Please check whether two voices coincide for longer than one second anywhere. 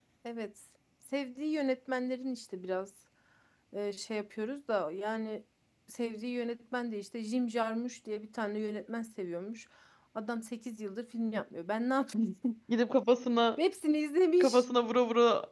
No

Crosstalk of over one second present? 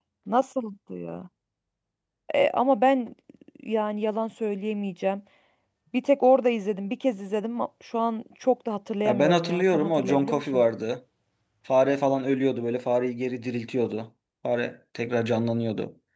Yes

